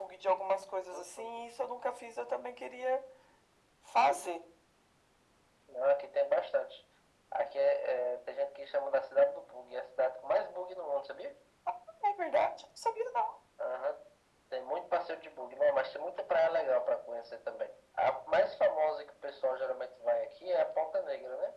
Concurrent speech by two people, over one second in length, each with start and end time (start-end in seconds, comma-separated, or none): none